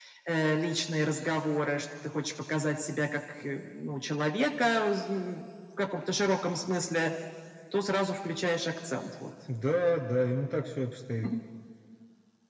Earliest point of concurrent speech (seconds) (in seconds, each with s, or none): none